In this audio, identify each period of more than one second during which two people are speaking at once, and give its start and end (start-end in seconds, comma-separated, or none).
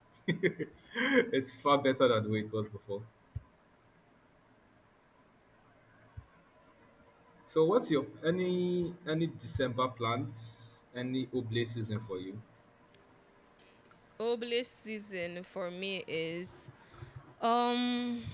none